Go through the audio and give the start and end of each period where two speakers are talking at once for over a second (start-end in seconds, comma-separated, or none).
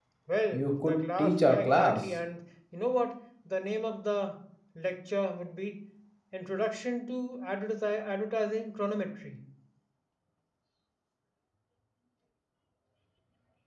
0.5-2.0